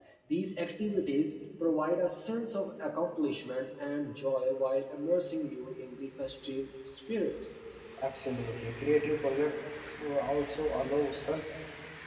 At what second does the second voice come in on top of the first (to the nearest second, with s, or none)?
none